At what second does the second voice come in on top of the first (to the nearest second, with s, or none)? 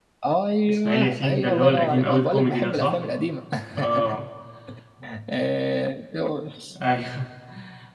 1 s